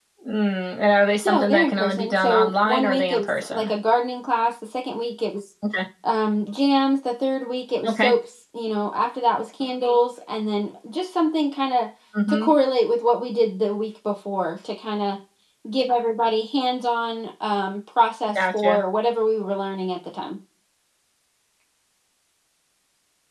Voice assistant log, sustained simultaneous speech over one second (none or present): present